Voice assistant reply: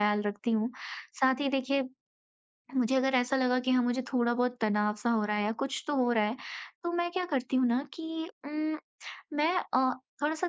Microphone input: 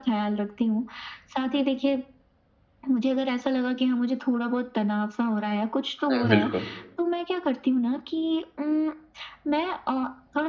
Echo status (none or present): present